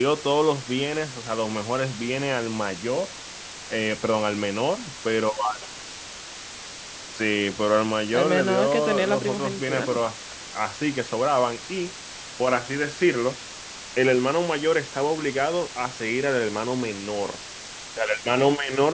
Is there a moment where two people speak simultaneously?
Yes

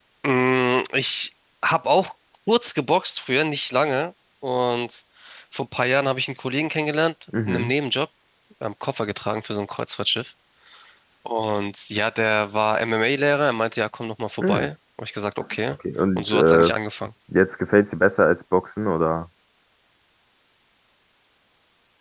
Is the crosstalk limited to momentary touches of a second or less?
Yes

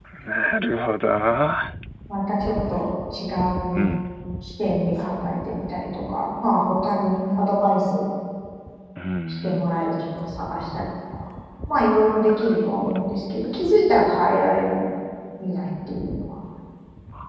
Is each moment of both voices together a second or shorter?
Yes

